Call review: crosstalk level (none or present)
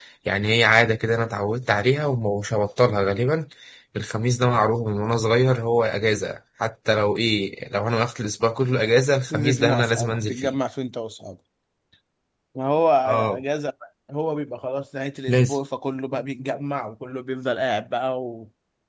present